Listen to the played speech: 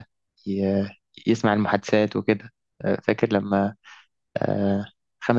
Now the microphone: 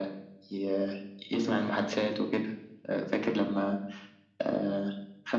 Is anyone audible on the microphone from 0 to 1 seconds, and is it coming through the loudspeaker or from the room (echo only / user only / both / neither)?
echo only